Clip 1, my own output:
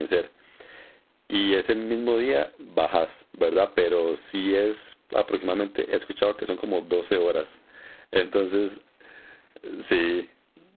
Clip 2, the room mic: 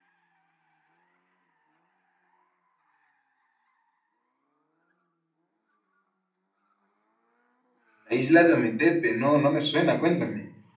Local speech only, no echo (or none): La isla de Ometepe, no, no me suena, cuéntame.